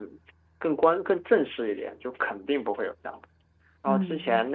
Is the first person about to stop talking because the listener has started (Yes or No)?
No